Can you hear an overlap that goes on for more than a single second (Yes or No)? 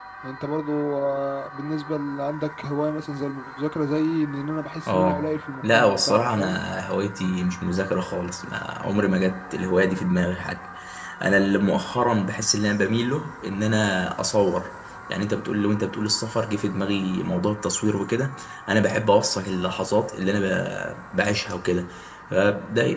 Yes